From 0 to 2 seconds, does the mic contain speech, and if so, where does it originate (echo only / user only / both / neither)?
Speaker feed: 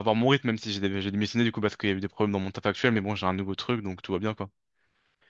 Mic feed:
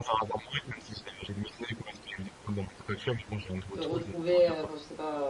echo only